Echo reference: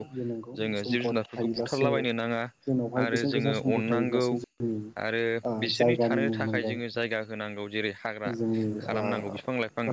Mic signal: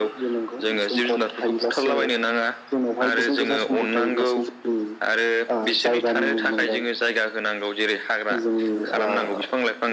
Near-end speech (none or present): none